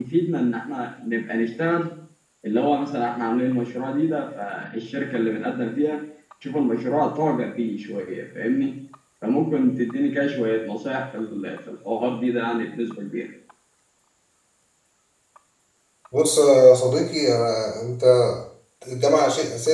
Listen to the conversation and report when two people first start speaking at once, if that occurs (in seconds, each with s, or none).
none